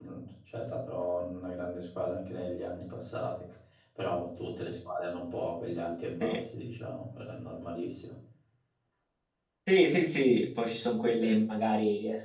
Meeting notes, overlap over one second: none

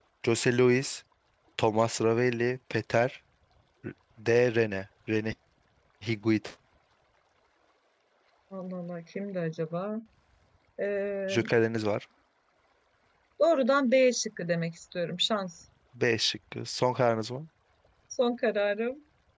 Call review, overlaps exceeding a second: none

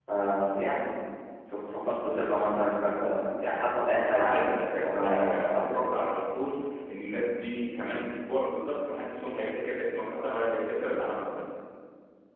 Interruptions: present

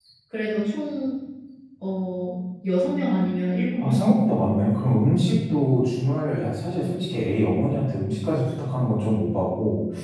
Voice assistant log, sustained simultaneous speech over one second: none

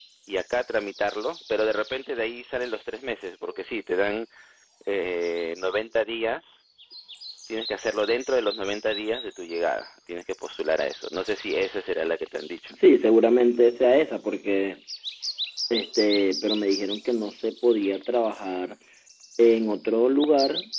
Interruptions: none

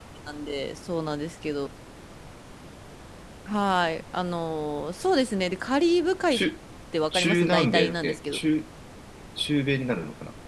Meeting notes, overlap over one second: present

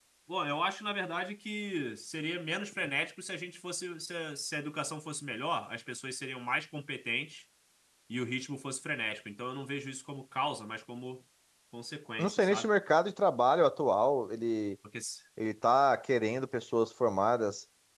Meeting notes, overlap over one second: none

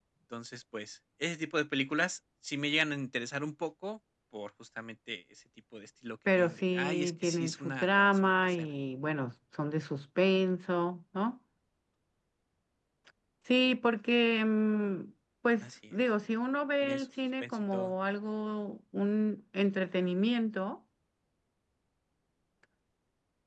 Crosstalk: present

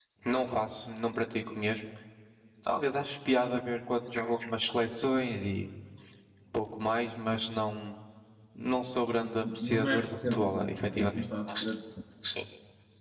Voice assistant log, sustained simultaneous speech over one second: present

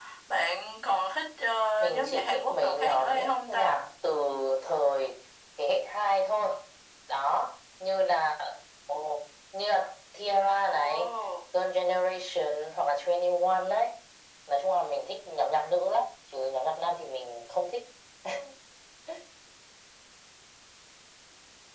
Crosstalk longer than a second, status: present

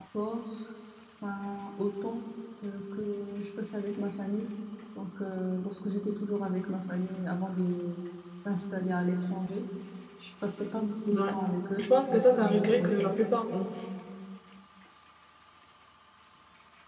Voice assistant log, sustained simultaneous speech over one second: present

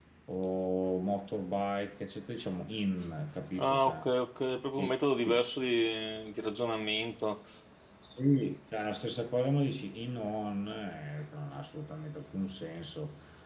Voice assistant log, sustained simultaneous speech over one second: none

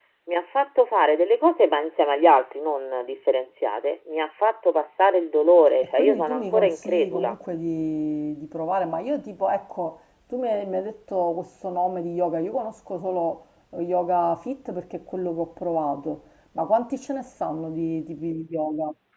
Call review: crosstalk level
present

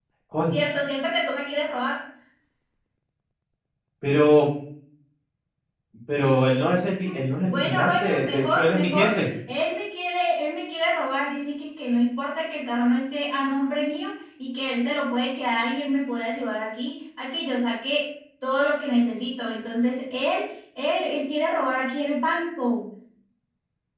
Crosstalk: present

